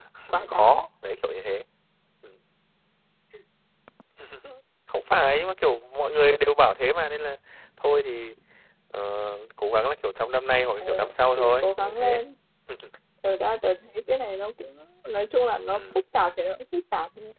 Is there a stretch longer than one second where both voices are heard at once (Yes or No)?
Yes